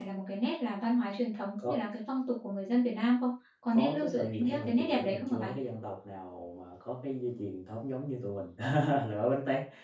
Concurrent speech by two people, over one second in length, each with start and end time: 3.7-5.5

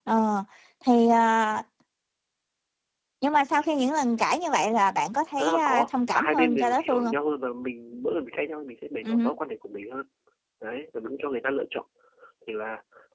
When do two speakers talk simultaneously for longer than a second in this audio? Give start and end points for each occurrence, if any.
5.4-7.1

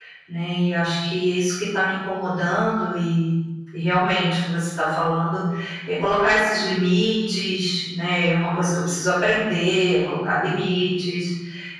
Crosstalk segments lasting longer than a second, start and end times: none

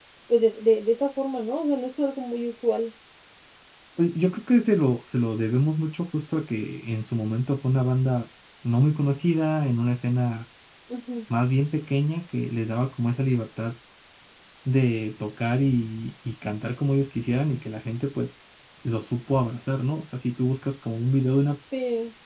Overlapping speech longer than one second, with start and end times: none

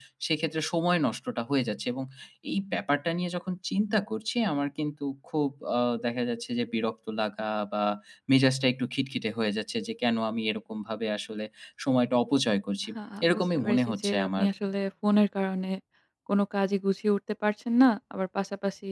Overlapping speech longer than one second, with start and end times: 13.2-14.5

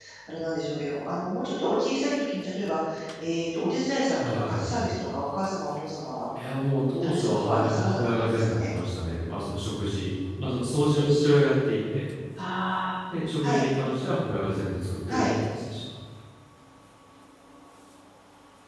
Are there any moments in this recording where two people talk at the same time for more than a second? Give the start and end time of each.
7.0-8.6

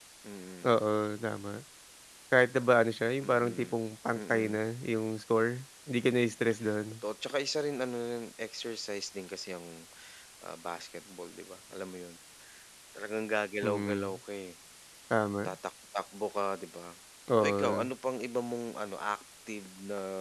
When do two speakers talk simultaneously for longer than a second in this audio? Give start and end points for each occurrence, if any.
none

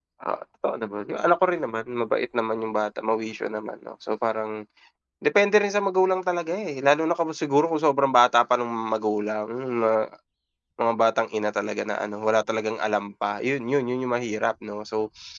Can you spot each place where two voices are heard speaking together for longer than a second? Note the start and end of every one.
none

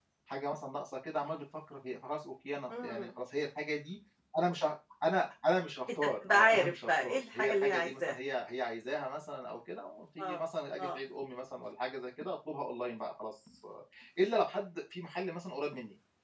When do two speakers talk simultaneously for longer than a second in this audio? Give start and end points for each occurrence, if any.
6.0-8.1

